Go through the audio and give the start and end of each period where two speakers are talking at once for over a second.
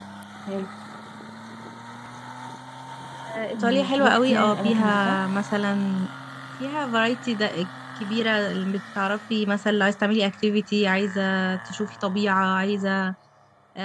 3.5-5.2

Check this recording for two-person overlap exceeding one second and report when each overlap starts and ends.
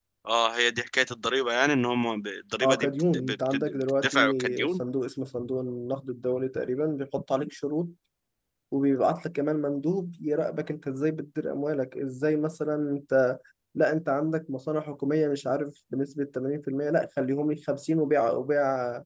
2.6-4.8

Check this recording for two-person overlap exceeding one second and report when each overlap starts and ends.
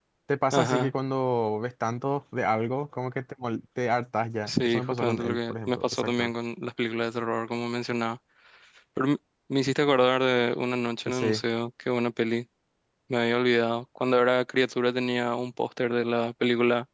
4.5-6.3

